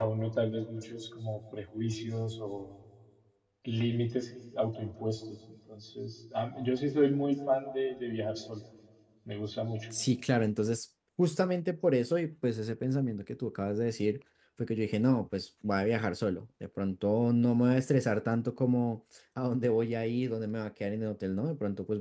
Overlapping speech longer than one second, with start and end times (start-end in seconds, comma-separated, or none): none